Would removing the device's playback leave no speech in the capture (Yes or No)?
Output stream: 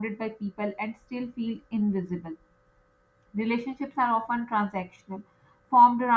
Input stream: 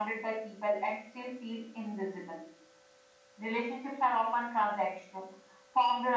Yes